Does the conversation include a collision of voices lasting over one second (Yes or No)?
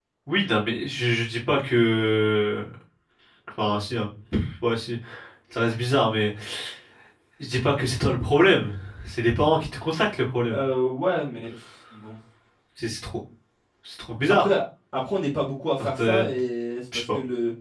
No